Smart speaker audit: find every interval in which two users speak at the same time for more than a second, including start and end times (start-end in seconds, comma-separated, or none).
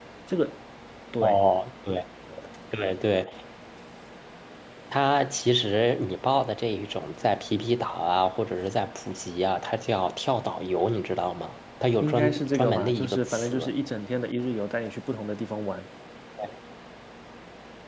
12.0-13.7